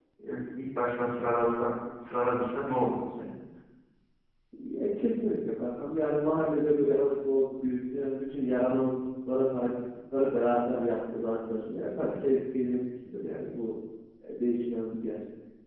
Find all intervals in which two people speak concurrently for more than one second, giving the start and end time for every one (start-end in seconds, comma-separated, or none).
none